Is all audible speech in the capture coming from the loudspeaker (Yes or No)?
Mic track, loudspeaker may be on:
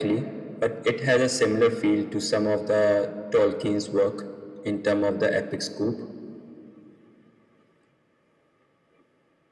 Yes